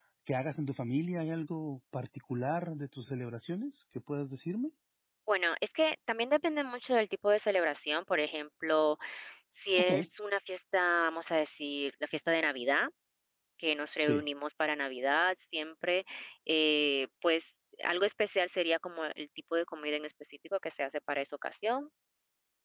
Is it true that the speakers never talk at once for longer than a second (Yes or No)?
Yes